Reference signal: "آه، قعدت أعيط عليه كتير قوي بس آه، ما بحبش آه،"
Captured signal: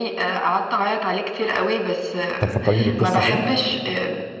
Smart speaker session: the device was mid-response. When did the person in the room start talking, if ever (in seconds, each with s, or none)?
2.4 s